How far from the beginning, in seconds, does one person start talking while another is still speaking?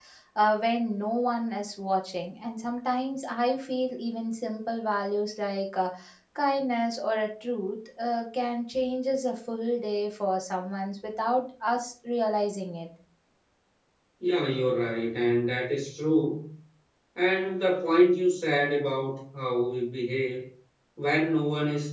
none

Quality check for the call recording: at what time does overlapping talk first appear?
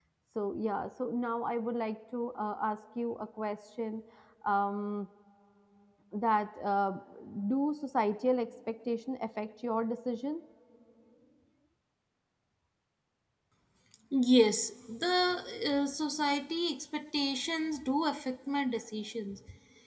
none

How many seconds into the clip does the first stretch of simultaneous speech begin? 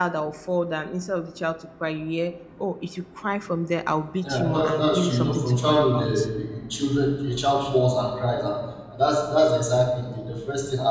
4.2 s

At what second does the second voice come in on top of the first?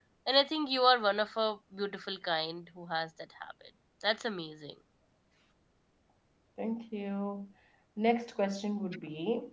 none

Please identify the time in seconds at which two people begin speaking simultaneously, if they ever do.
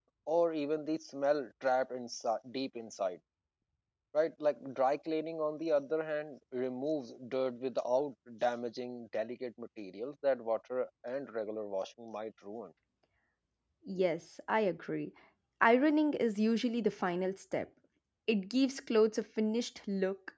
none

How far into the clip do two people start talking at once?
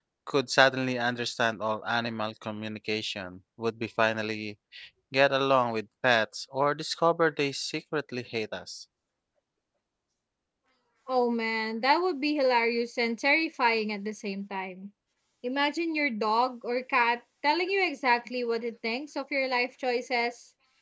none

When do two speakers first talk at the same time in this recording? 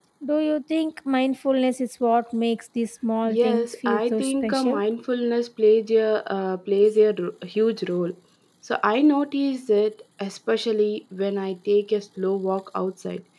3.2 s

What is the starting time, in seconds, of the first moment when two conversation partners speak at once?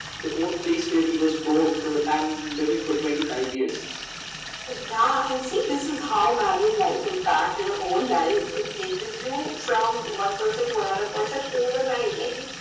none

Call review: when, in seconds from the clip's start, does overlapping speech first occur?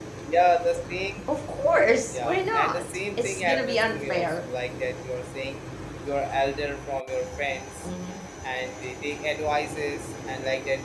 2.1 s

